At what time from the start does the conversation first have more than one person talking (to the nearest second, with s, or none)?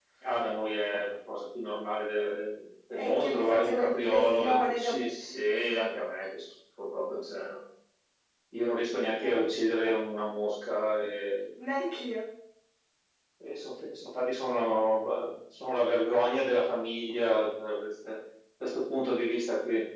3 s